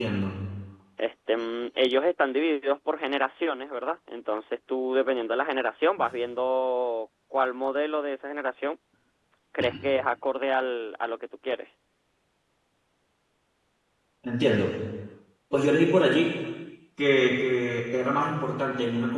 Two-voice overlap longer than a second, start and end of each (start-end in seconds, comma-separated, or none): none